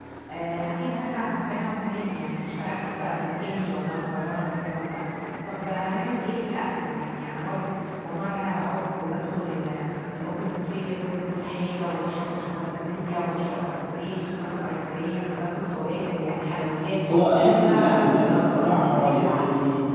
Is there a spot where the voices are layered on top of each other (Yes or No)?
Yes